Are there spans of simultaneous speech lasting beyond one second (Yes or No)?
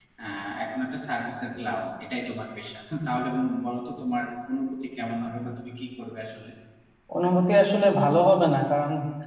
No